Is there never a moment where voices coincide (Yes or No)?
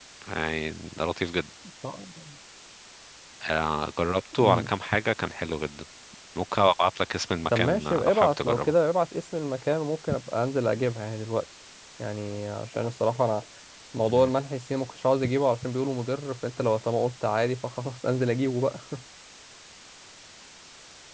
No